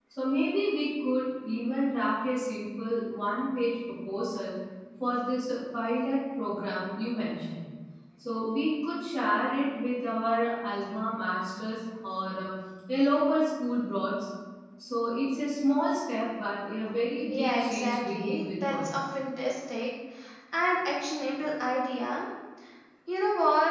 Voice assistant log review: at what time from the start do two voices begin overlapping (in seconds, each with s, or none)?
17.3 s